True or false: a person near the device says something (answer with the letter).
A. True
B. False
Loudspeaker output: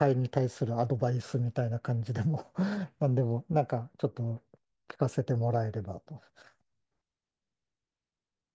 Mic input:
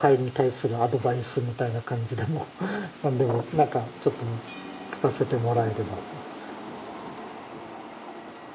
B